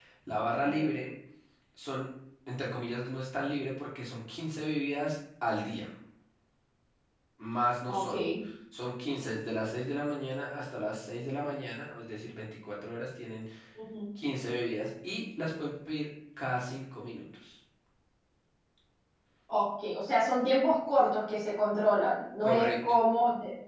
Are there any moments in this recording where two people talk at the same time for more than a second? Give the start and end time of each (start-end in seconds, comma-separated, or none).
none